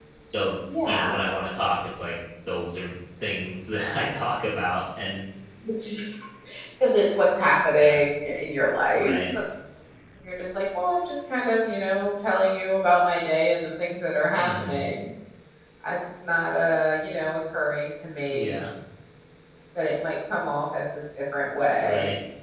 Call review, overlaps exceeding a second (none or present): none